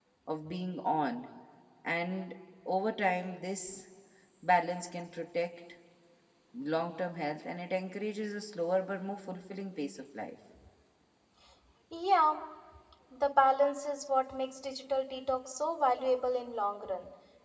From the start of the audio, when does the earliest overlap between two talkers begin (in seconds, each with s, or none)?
none